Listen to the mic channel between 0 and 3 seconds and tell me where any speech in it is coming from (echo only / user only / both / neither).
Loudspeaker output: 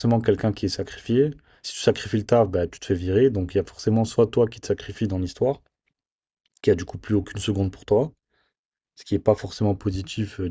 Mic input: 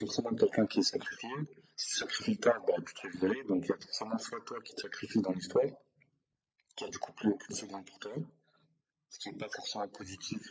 echo only